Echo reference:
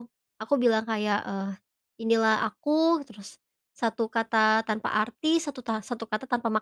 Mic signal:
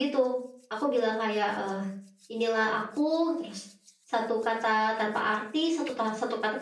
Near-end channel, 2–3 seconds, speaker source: echo only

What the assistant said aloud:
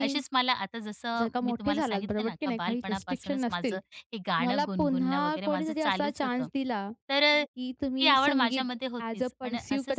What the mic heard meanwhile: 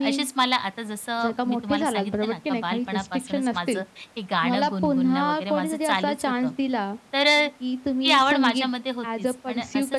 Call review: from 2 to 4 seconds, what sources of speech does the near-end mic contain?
echo only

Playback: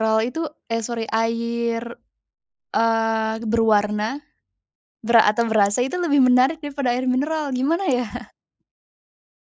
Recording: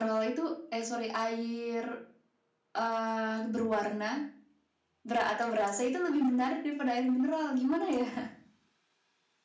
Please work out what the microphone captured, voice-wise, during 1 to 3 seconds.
echo only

